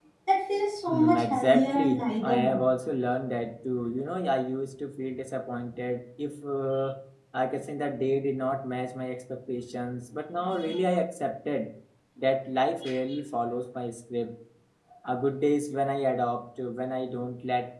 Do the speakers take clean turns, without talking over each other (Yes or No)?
No